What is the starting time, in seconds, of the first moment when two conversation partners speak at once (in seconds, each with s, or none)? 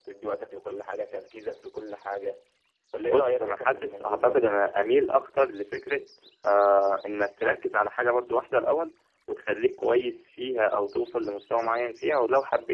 3.0 s